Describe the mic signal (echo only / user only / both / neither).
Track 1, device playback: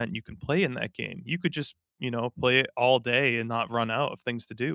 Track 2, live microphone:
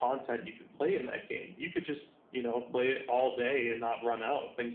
echo only